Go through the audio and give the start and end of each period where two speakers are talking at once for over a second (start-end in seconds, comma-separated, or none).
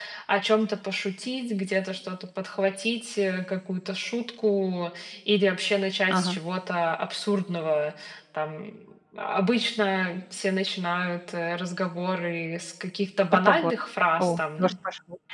none